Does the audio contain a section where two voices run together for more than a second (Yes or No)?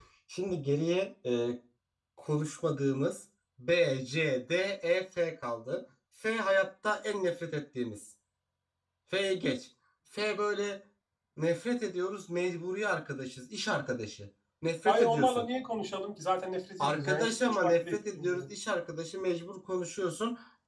Yes